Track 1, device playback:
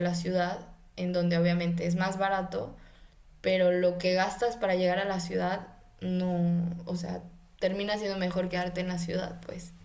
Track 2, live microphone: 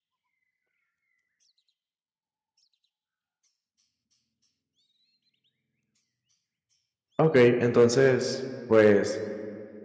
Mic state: user only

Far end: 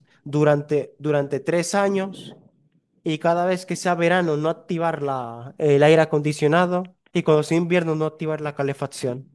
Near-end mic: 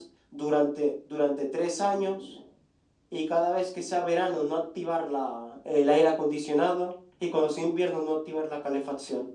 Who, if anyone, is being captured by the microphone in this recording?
echo only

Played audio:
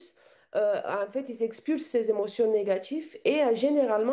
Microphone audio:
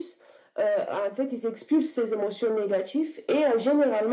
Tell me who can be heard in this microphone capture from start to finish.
echo only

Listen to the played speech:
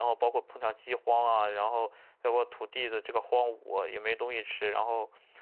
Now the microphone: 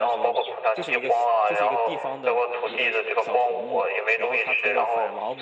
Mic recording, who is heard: both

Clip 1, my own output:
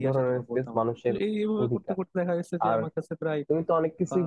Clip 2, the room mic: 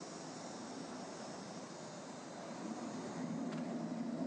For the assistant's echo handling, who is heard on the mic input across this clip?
neither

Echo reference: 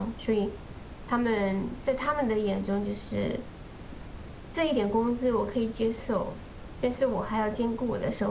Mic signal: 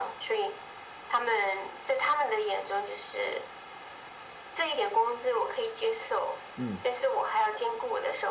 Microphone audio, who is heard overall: both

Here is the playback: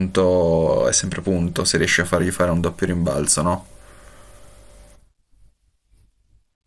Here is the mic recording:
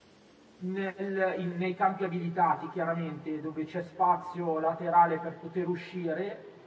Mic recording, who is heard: user only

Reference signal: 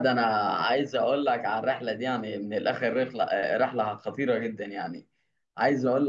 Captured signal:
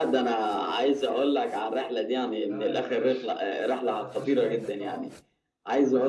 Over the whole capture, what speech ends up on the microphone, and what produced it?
both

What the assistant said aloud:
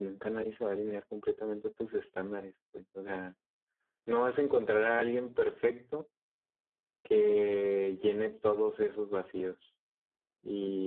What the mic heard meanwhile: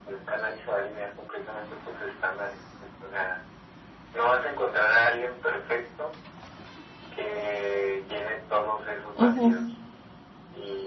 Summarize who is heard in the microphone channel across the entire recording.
both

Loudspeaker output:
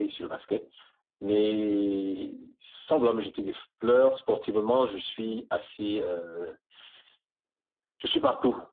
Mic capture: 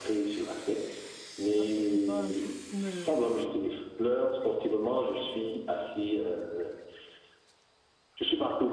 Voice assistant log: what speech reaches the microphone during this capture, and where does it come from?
both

